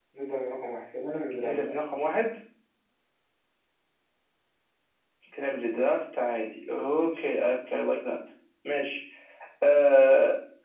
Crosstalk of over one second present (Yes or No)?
No